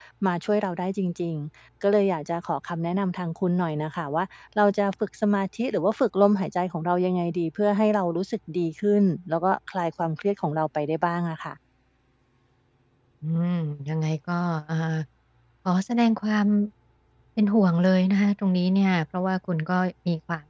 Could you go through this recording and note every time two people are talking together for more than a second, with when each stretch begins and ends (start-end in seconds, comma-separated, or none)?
none